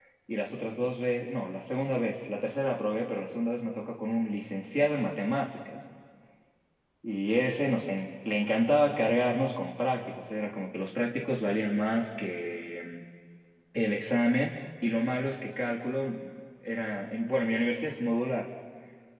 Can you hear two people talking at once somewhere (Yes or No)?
No